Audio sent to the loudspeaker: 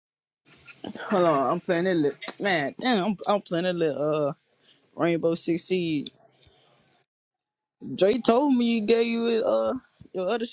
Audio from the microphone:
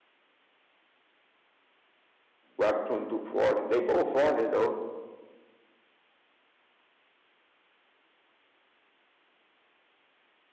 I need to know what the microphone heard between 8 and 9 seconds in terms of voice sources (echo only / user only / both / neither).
neither